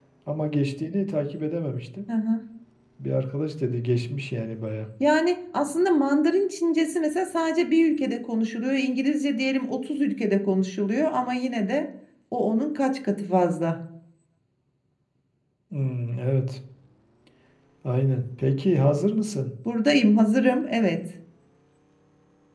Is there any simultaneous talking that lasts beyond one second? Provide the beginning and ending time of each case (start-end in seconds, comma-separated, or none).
none